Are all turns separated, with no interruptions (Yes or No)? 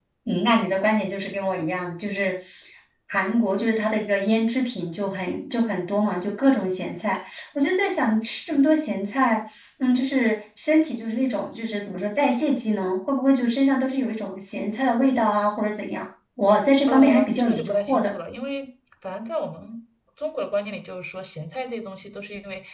No